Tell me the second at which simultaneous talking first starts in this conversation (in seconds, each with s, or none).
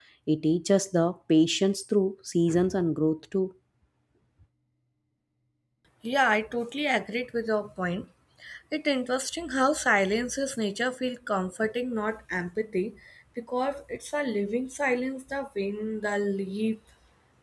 none